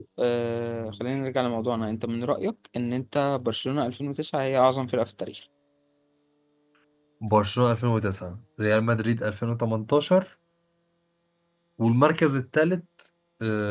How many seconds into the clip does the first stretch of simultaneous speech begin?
none

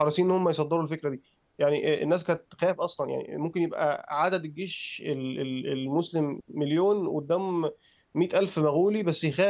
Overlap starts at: none

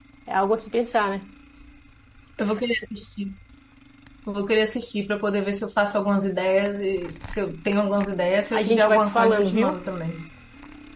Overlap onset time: 8.5 s

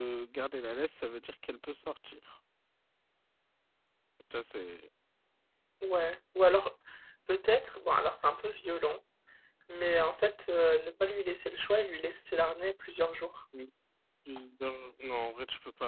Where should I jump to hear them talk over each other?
none

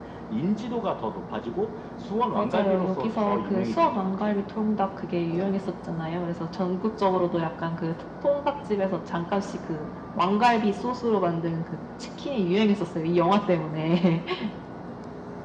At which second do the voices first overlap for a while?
2.4 s

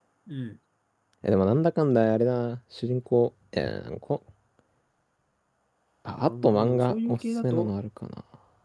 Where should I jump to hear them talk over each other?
6.3 s

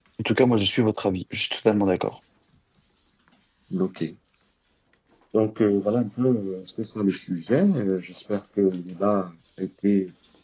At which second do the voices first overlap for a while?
none

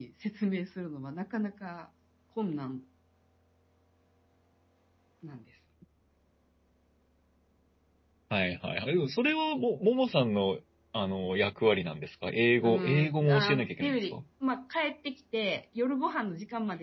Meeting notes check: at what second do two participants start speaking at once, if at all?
12.6 s

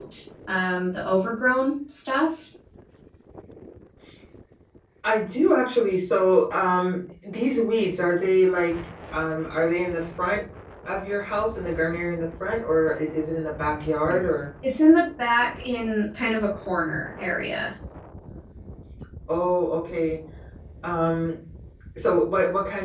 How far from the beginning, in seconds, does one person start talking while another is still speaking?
none

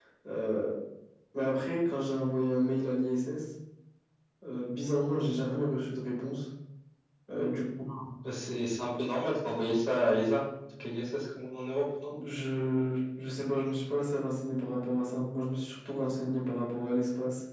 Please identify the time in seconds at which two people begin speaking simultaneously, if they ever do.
none

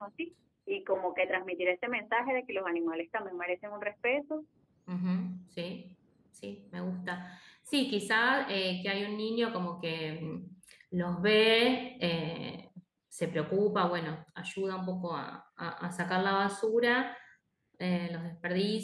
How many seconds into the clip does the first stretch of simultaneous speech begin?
none

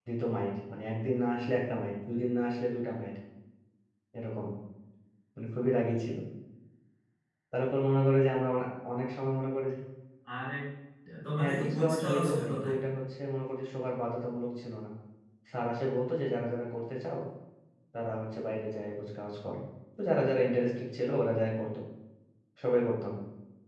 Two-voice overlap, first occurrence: 11.4 s

